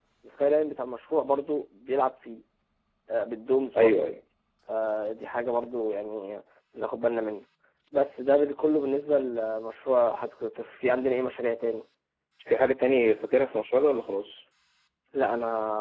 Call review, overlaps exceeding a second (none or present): none